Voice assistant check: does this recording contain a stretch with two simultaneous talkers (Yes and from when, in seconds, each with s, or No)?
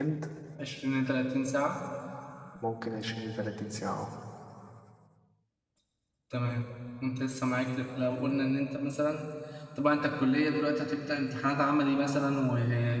No